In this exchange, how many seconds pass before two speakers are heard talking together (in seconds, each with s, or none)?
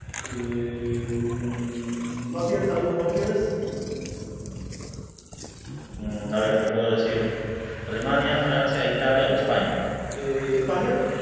none